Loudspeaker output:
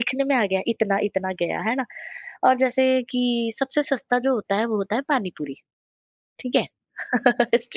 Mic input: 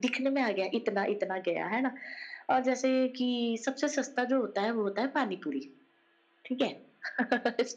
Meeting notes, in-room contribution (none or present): none